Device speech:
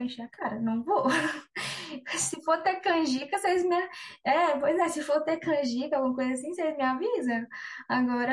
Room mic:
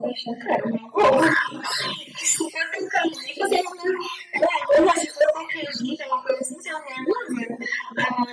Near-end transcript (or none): none